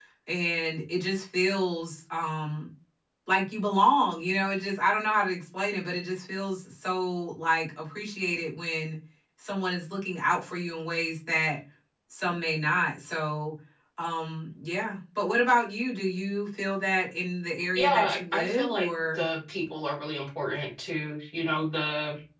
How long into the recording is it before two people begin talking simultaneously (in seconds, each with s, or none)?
17.8 s